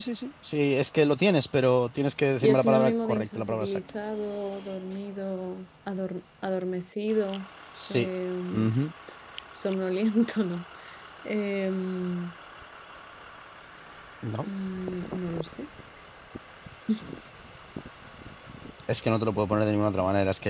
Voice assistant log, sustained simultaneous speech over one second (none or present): present